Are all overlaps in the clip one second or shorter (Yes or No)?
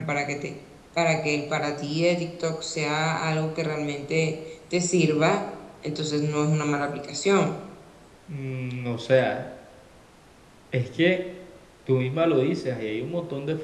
Yes